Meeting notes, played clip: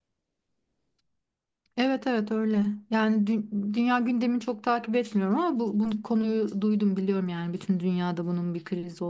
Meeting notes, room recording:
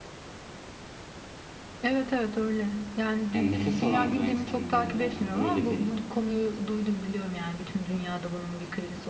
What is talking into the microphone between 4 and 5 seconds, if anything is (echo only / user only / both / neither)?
both